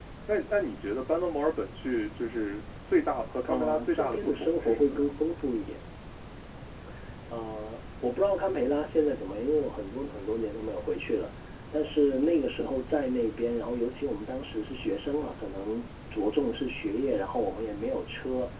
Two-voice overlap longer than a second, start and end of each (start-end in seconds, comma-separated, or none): 3.5-5.1